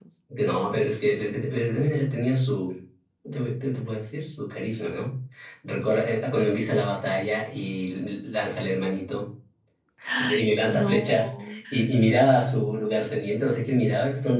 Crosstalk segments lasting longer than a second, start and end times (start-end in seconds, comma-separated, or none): 10.2-11.6